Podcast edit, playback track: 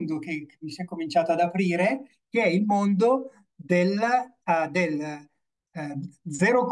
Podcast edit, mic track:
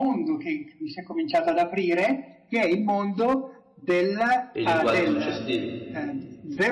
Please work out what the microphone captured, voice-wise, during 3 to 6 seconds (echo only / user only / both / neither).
both